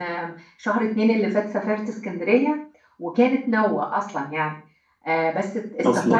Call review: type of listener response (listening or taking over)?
listening